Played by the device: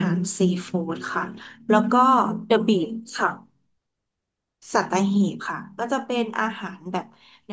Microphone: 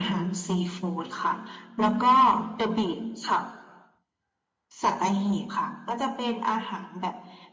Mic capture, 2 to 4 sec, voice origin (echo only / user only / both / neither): echo only